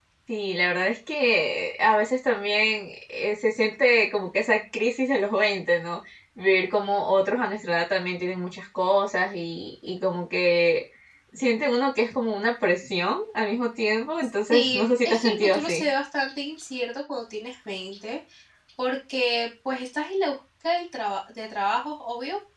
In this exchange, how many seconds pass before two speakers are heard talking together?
15 s

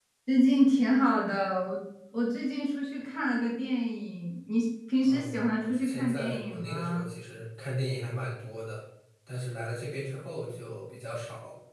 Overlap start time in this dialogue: 5 s

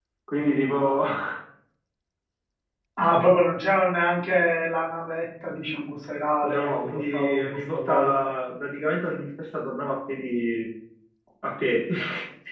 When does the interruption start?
6 s

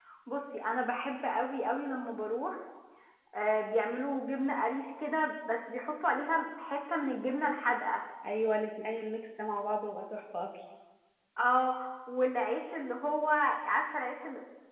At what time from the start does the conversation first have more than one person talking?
none

